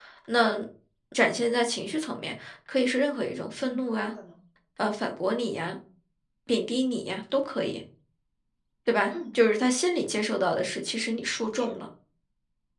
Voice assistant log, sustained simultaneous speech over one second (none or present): none